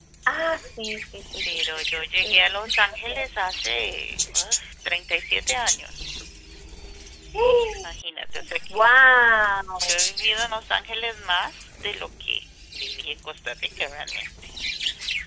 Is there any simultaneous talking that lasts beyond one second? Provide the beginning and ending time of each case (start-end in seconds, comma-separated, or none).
1.5-3.3